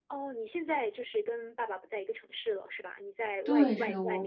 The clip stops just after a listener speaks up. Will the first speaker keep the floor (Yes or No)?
No